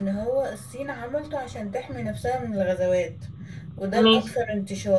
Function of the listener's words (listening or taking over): listening